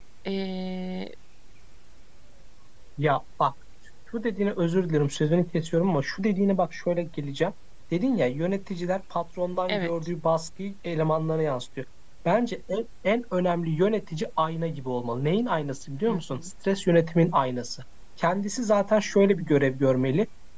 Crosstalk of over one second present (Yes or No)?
No